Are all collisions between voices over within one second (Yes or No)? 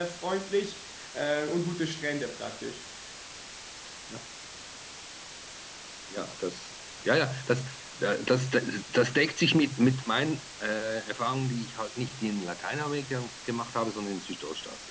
Yes